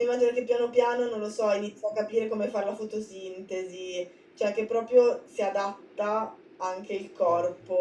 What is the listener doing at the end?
listening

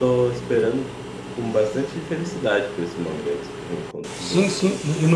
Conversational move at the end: taking over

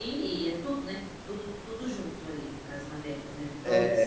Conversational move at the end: taking over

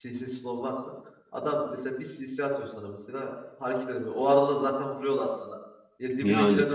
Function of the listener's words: listening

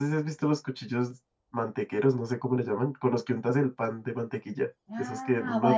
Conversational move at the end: taking over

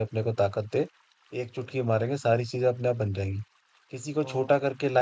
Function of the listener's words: listening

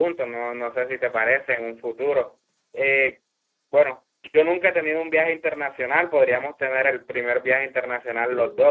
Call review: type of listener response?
taking over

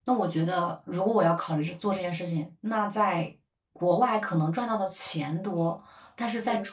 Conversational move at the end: listening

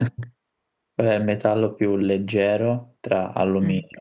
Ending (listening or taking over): listening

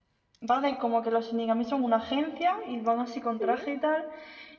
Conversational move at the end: listening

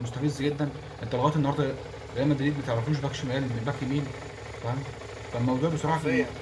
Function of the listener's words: listening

